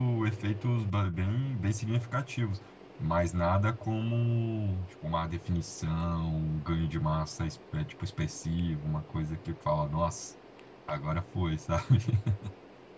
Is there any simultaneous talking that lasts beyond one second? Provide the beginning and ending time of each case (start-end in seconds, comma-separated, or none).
none